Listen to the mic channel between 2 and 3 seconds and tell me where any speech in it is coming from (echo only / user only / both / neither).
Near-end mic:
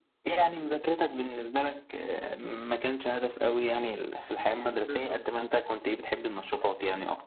echo only